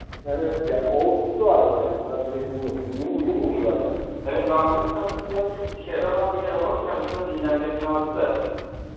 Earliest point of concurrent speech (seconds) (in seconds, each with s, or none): none